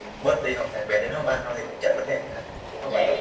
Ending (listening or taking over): taking over